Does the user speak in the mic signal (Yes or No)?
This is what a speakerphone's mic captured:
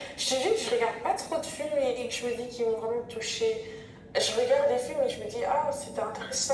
No